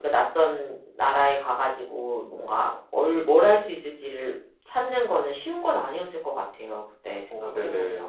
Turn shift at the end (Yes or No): No